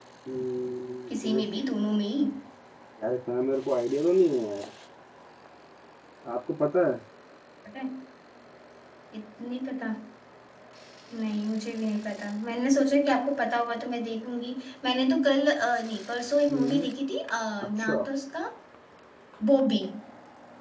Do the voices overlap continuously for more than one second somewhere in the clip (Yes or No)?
No